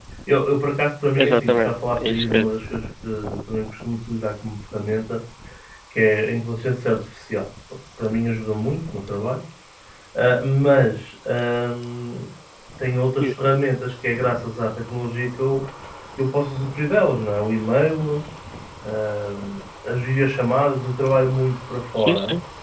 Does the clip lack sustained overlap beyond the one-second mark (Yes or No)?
No